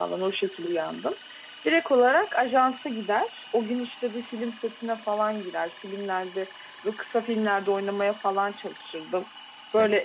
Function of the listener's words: listening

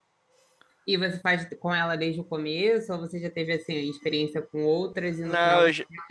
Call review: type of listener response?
taking over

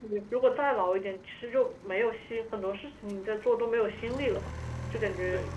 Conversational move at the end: listening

